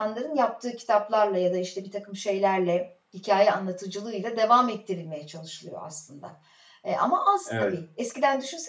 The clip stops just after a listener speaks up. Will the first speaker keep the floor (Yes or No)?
Yes